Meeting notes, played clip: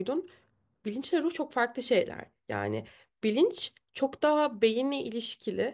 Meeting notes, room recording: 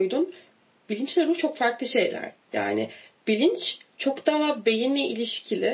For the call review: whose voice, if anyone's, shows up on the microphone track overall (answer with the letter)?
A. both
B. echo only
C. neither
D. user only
B